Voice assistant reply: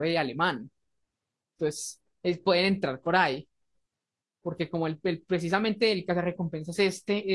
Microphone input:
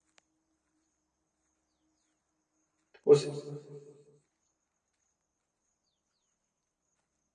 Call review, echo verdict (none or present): none